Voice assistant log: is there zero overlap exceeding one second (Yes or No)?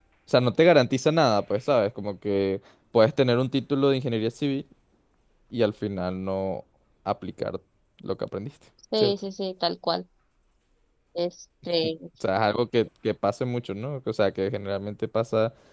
Yes